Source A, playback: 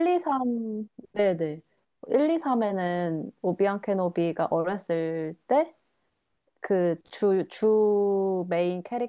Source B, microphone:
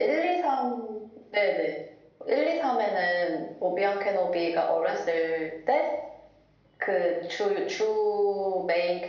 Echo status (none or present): present